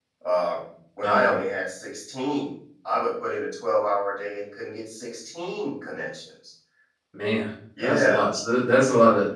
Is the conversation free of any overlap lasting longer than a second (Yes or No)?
Yes